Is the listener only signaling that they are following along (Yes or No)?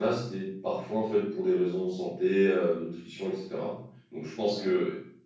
Yes